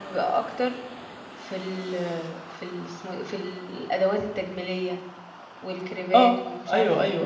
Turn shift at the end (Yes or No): Yes